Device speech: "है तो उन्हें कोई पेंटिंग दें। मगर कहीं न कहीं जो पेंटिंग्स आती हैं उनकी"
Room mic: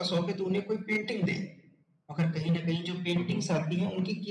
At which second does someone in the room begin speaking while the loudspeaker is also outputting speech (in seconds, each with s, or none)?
3.2 s